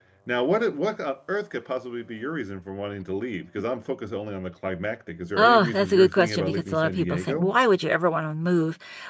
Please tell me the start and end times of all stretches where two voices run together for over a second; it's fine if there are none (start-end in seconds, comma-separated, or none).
5.4-7.5